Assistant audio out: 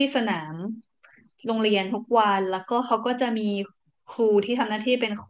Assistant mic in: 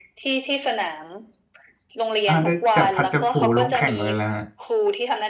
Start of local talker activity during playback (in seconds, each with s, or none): 2.3 s